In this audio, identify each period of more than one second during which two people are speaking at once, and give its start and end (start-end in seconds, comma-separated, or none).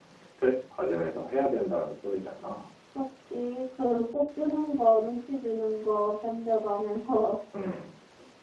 none